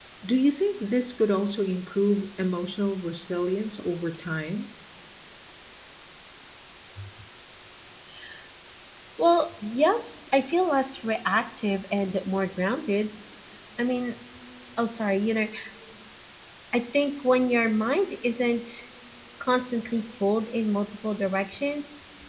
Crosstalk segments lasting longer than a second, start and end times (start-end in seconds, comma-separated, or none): none